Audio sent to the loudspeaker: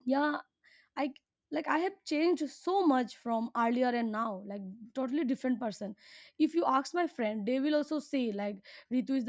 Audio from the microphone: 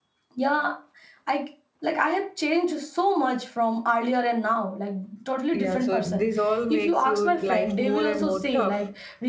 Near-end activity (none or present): present